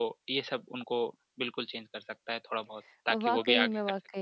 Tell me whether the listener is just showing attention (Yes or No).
No